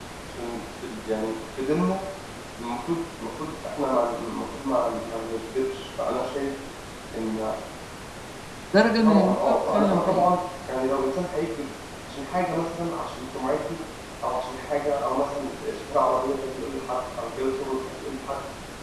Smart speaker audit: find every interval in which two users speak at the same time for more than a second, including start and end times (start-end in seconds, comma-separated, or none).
9.0-10.3